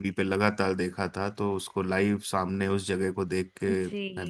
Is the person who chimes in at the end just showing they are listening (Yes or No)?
No